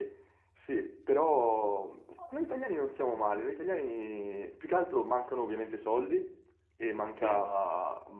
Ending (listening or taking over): listening